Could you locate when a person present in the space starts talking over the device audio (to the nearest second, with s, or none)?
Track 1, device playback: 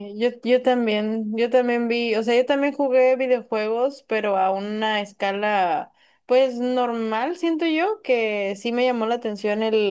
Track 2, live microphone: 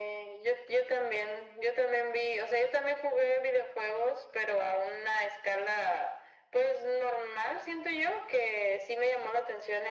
none